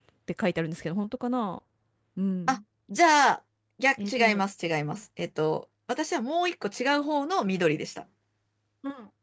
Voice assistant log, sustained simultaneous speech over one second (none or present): none